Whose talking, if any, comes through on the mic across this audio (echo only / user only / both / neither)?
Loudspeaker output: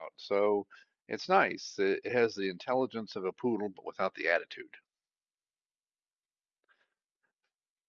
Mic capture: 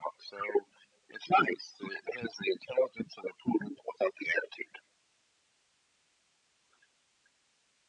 echo only